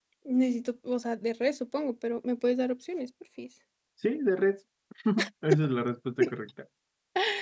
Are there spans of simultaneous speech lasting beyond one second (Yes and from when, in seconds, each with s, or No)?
No